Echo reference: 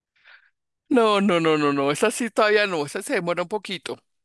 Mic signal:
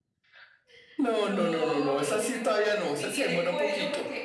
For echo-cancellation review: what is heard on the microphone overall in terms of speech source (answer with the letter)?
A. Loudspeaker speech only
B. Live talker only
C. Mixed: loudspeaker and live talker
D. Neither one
C